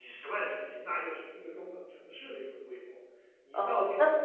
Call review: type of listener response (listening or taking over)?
taking over